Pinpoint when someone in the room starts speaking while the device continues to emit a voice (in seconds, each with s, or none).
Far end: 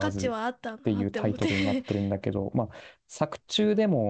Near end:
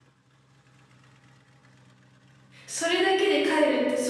2.7 s